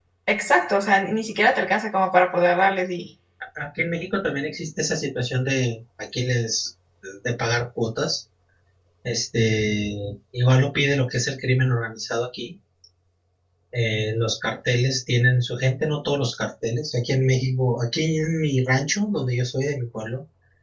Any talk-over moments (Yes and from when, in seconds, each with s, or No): No